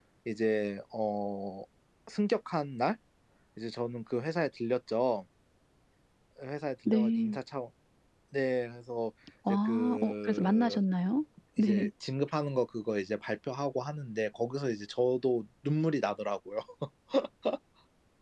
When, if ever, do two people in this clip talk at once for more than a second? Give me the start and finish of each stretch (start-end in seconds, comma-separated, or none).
9.5-10.8